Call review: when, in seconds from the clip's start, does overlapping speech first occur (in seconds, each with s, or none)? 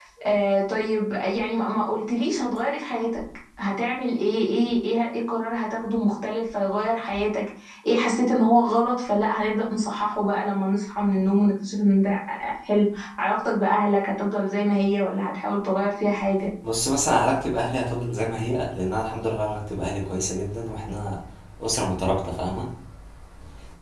none